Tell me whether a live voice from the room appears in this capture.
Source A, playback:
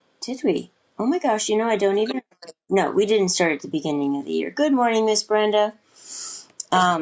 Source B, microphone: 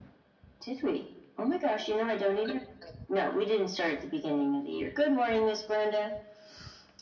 No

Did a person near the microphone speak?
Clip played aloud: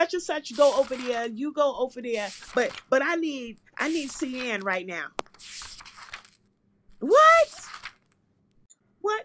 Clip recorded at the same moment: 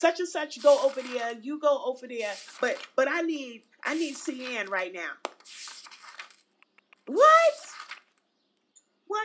No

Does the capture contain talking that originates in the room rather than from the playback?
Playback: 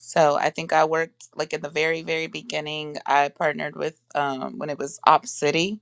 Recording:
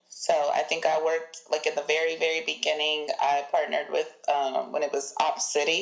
No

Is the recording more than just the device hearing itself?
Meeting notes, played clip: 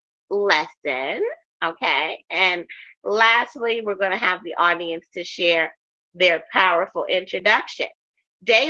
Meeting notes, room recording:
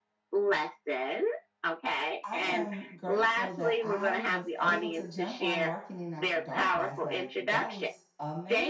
Yes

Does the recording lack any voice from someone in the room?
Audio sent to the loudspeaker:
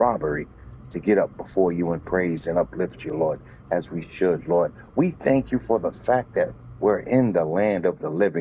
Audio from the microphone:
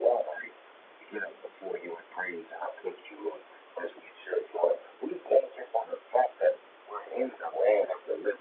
Yes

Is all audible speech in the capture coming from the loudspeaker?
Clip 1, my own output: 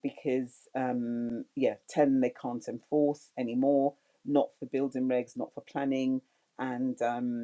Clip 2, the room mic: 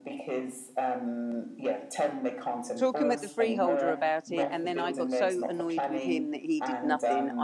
No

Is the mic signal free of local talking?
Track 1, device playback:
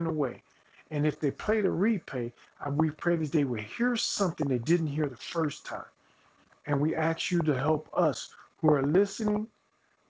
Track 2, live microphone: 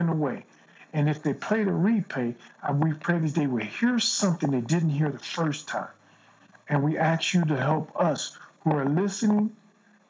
Yes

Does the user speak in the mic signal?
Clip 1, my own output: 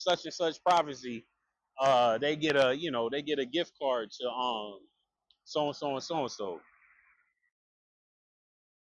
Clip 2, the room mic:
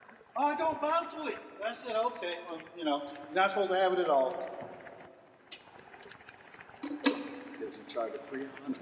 Yes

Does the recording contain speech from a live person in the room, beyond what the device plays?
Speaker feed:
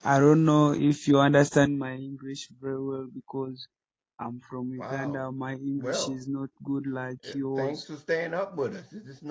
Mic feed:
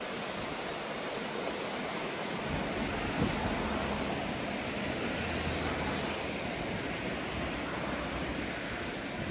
No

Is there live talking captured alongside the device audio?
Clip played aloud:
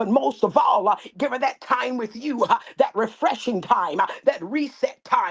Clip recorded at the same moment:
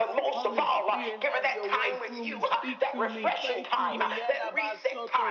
Yes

